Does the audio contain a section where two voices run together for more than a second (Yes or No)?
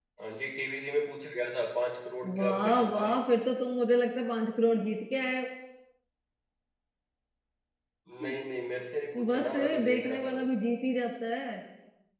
Yes